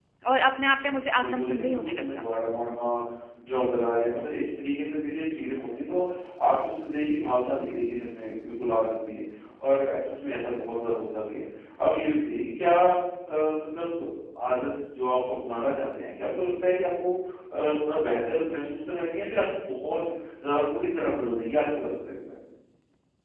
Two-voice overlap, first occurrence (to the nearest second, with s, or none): 1 s